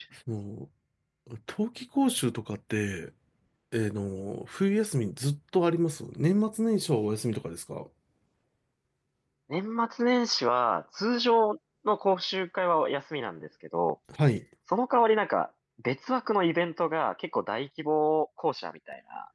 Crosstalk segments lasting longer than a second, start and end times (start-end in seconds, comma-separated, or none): none